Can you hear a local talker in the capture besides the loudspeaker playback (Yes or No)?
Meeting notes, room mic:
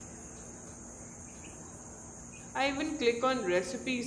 Yes